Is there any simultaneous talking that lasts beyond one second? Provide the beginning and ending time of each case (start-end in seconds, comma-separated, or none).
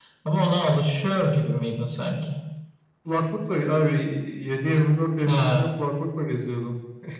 none